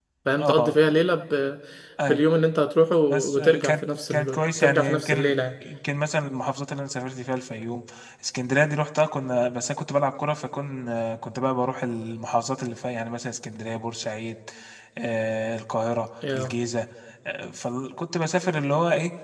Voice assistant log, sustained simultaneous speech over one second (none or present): present